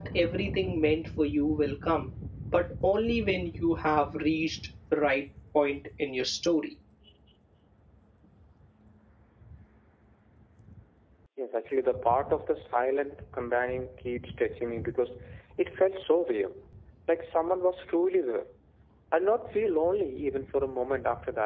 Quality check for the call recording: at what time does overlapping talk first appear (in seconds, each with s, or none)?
none